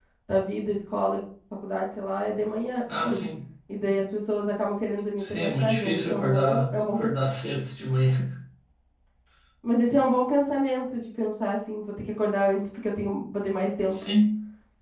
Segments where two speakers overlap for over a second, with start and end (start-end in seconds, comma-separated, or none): 5.2-7.1